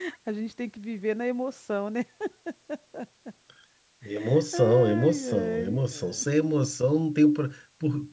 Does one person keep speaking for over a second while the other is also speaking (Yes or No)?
Yes